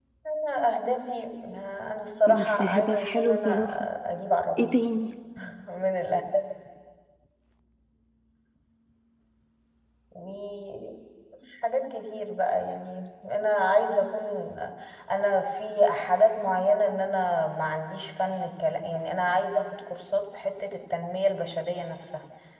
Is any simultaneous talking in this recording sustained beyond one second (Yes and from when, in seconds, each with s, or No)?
Yes, from 2.3 s